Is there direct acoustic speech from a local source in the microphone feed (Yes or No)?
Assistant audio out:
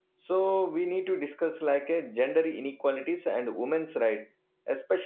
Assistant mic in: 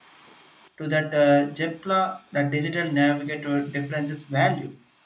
Yes